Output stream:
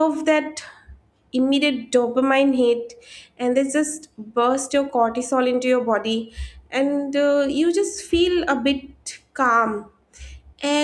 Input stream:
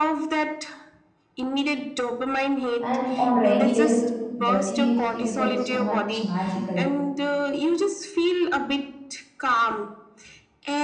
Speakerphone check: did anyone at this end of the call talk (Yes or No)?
Yes